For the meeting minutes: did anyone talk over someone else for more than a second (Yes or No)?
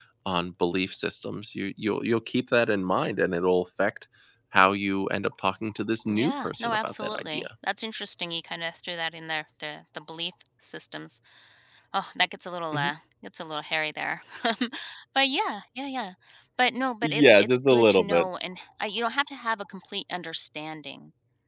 Yes